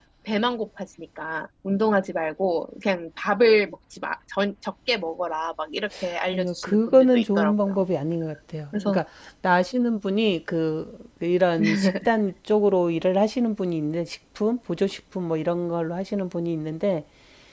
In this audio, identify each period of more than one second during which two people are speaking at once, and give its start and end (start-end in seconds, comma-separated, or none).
6.3-7.8